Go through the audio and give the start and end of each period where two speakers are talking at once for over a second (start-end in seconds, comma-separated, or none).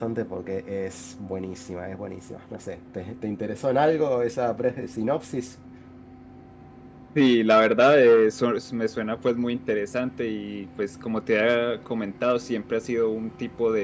none